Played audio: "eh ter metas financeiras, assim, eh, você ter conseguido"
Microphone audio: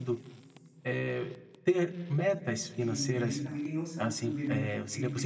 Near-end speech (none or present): present